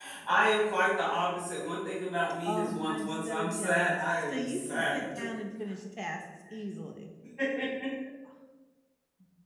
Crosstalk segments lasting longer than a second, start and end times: 2.4-5.0

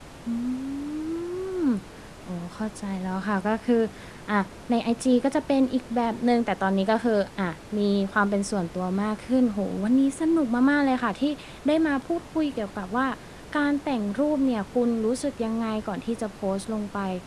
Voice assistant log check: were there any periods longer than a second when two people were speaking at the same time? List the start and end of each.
none

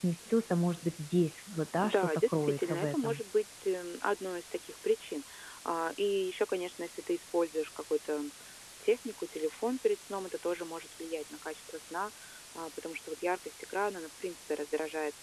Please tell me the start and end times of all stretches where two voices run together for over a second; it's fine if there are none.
1.8-3.2

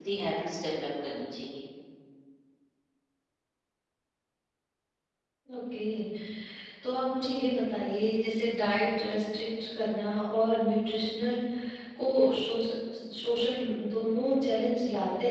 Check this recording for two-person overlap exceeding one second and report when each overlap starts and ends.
none

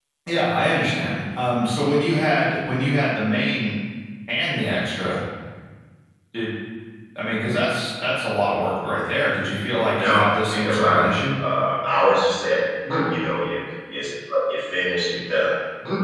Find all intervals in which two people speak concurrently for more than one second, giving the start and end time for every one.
9.7-11.0

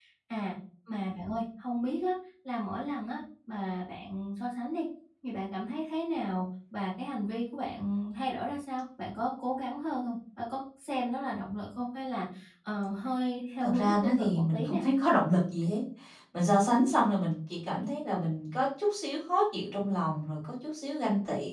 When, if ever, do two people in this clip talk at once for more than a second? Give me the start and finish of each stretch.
13.6-14.8

